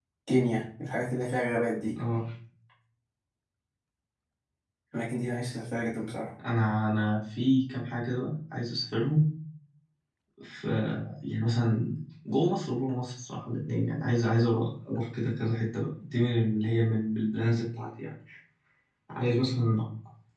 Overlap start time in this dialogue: none

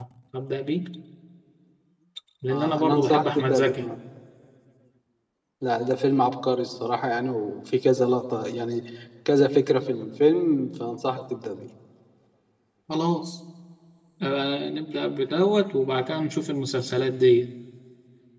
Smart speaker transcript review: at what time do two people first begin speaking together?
2.5 s

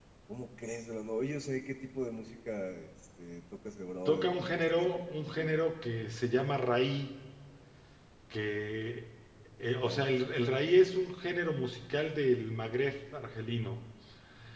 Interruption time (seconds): 4.0 s

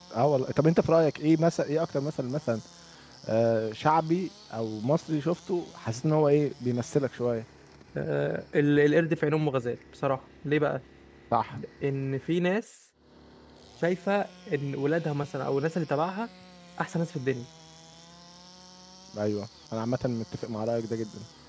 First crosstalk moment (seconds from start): none

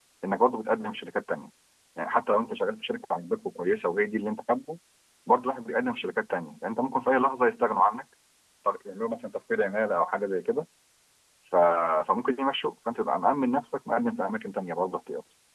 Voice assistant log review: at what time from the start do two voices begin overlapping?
none

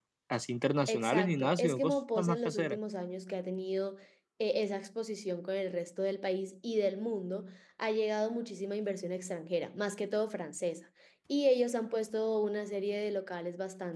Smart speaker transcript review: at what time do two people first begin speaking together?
0.9 s

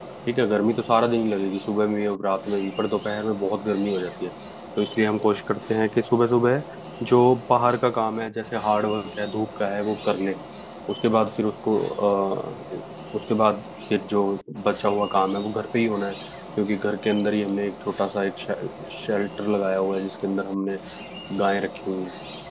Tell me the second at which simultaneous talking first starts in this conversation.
none

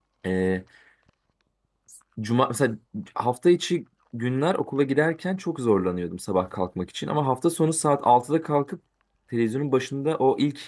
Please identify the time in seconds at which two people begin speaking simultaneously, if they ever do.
none

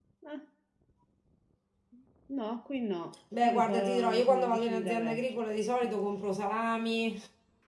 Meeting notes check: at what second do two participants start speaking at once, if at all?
3.3 s

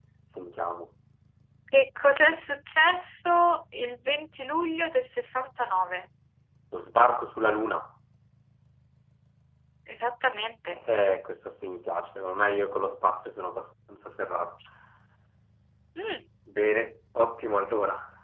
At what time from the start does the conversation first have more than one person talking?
none

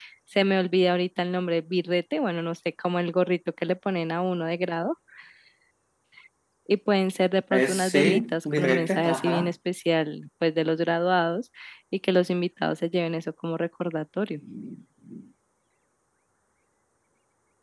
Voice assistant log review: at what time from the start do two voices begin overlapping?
7.5 s

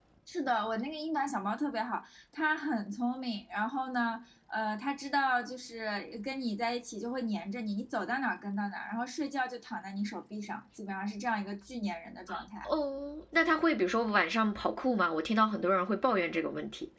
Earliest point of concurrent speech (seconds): none

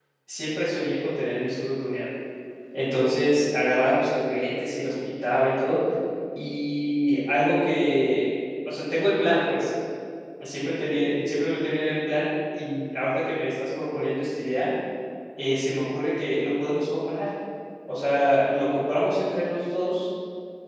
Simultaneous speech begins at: none

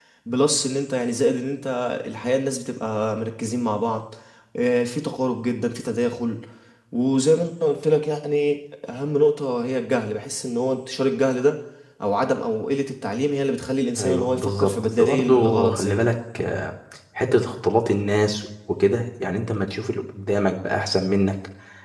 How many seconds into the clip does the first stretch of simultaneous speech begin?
14.0 s

